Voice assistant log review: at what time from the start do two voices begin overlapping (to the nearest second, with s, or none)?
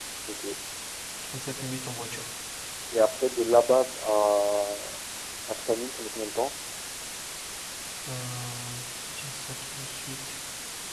none